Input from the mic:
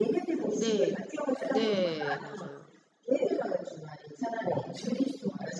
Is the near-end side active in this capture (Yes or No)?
Yes